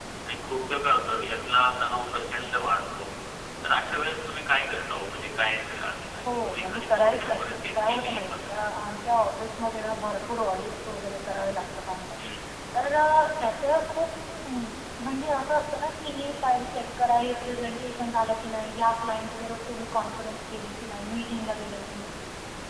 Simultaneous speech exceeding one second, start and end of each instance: 6.2-8.4

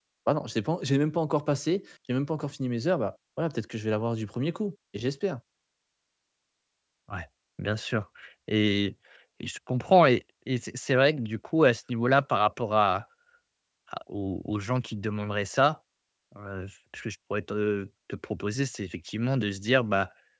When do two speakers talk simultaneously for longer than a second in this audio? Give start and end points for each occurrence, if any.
none

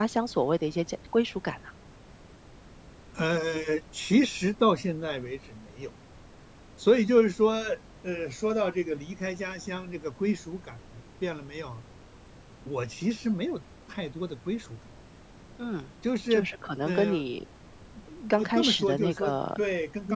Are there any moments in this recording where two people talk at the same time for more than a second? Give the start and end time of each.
18.4-19.6

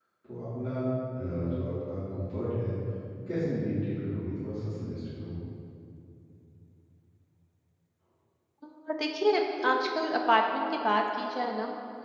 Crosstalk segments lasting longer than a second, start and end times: none

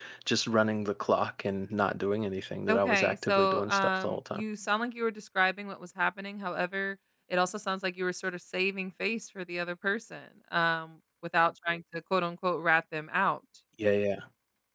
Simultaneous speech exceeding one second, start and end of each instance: 2.7-4.4

